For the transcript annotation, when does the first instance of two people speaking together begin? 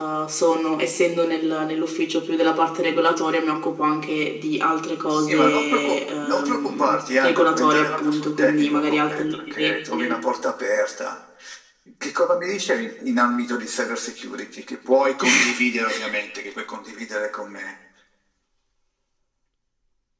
5.1 s

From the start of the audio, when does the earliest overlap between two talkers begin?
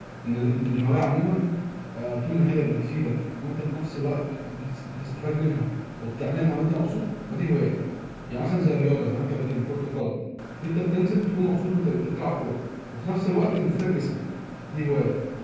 none

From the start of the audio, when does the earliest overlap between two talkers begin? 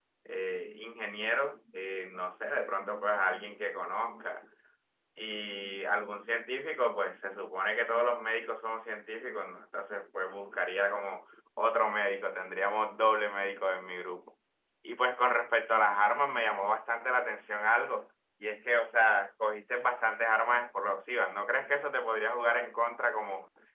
none

